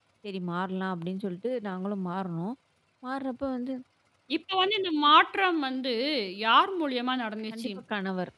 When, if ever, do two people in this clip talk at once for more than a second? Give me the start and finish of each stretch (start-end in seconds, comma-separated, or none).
none